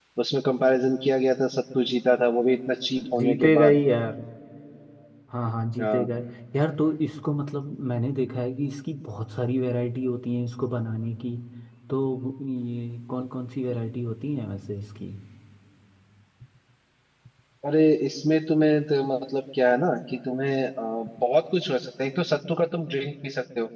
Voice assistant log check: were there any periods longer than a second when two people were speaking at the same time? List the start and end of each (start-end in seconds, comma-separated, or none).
none